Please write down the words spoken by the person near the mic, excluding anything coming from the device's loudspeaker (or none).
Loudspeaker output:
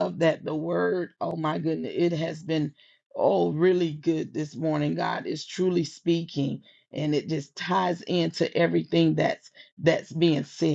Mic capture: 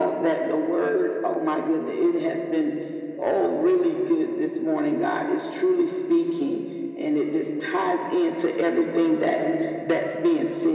none